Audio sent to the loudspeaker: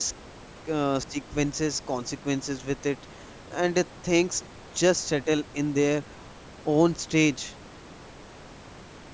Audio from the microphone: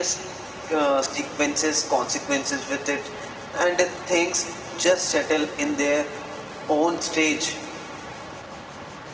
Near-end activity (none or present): none